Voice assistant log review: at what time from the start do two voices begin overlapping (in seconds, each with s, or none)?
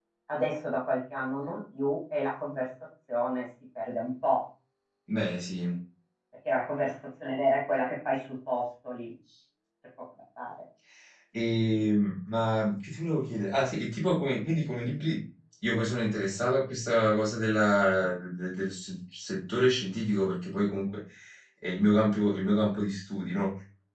none